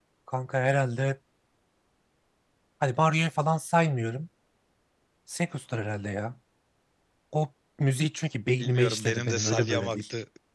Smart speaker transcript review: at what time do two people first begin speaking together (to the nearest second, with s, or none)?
9 s